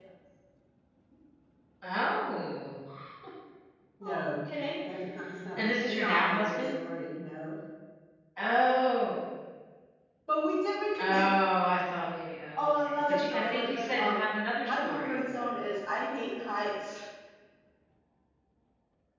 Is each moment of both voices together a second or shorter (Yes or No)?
No